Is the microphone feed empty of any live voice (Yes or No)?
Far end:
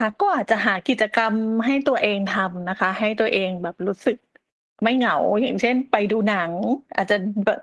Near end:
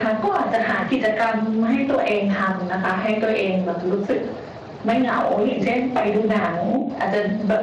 Yes